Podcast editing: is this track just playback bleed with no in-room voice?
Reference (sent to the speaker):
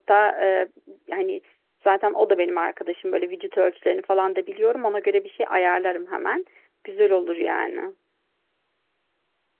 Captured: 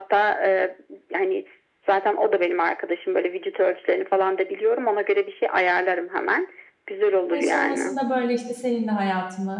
No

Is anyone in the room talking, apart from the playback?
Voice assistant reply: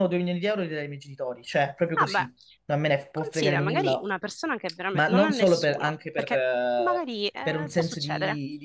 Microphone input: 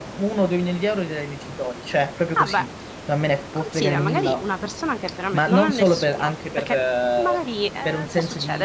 No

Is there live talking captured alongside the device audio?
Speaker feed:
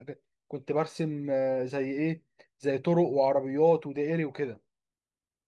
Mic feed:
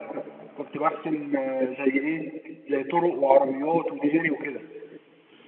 No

